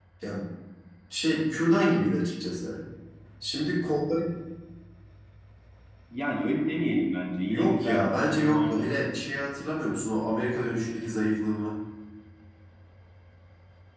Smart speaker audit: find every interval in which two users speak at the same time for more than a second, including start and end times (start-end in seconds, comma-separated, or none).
7.5-9.0